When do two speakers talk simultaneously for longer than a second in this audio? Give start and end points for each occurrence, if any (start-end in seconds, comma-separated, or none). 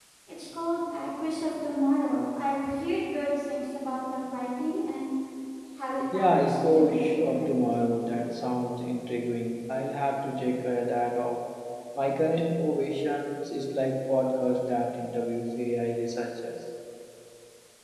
6.1-7.5